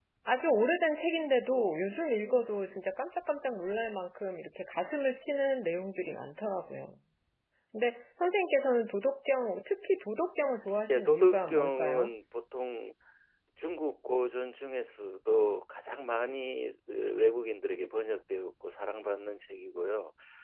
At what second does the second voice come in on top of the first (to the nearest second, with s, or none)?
11 s